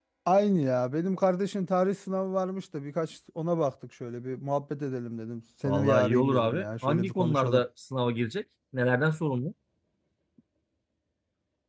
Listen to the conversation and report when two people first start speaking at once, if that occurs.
5.6 s

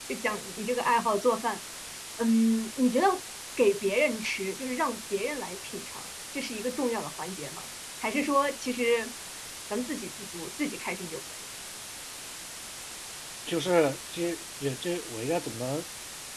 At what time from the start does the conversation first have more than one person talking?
none

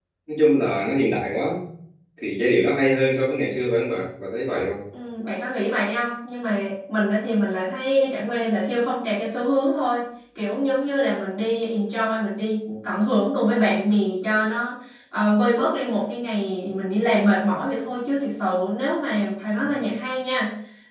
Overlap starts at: none

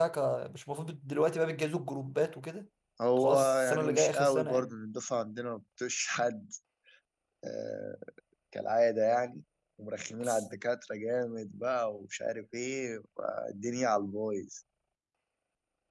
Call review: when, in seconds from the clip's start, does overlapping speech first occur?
3.2 s

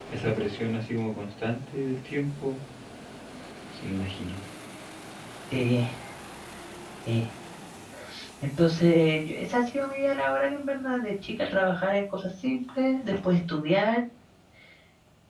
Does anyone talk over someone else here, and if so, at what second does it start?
none

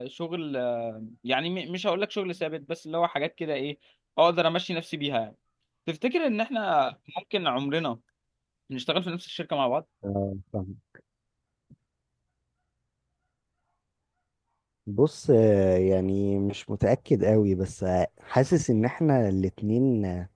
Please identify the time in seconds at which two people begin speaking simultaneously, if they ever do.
none

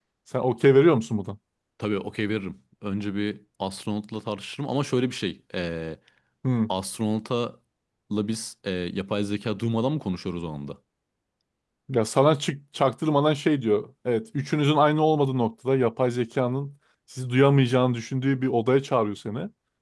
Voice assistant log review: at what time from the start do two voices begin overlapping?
none

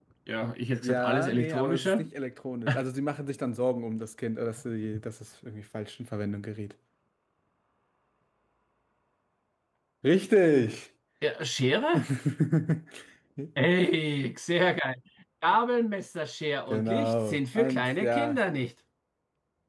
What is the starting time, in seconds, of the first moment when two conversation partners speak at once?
0.8 s

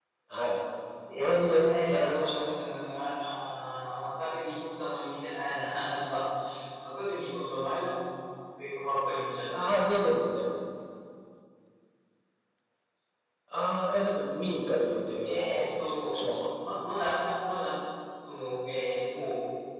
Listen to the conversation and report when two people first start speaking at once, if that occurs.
1.2 s

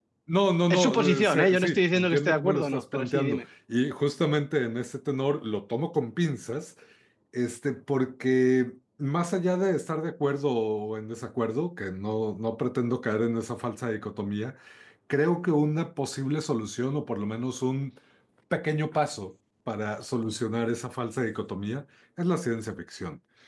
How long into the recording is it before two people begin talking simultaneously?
0.7 s

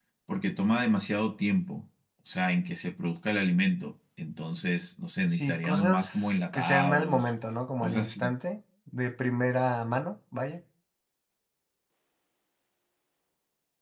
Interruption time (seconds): 5.3 s

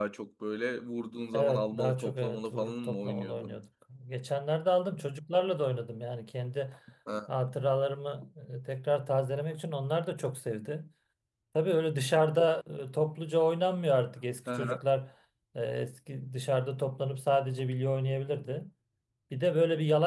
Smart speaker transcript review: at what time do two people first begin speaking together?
1.3 s

